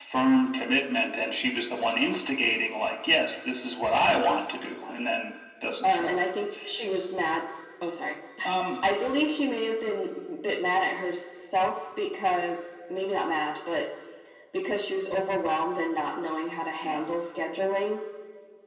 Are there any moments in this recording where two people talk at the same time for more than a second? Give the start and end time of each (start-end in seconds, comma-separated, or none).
none